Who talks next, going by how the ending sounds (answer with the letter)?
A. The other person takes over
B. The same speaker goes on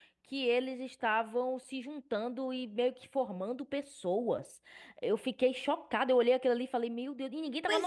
A